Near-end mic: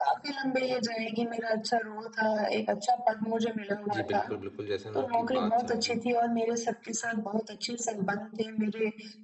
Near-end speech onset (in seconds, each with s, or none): 3.9 s